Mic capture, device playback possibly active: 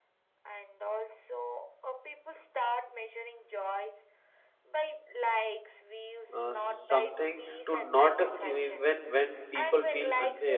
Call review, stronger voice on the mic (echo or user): user